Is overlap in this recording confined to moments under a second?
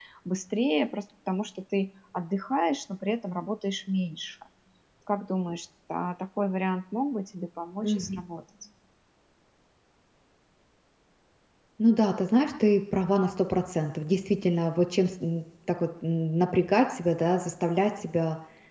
Yes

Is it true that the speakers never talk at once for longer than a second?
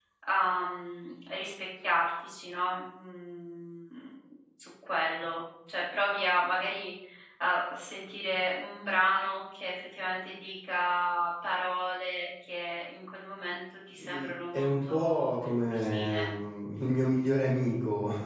No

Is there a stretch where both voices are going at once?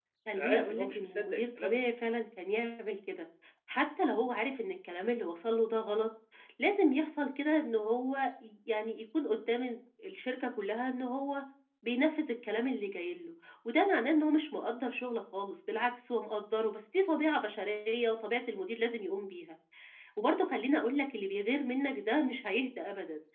Yes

